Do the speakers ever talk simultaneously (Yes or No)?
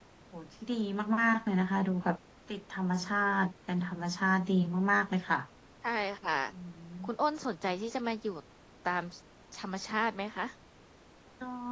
No